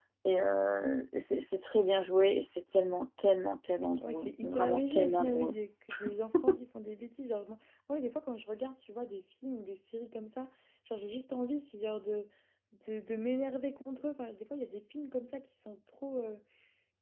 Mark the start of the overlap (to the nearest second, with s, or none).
4 s